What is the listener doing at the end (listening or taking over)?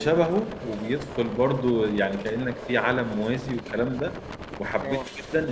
listening